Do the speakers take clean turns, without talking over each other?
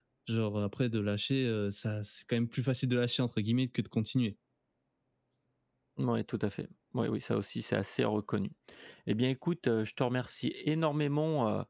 Yes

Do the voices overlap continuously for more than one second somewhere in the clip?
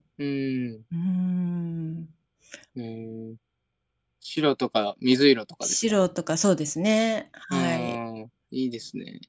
No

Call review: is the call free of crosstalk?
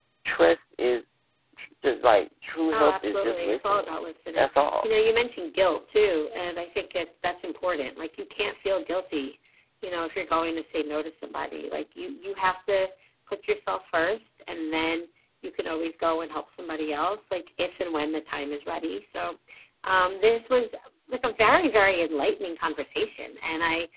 No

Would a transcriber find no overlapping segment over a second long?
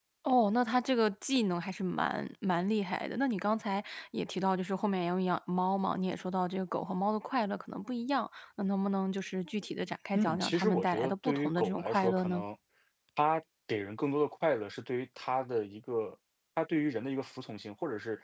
No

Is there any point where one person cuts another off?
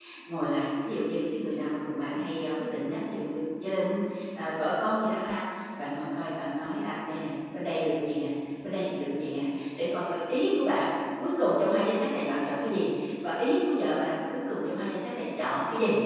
No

